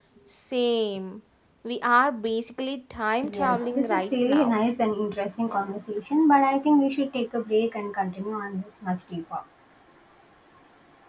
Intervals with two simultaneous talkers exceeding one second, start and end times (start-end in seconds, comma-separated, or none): 3.3-4.6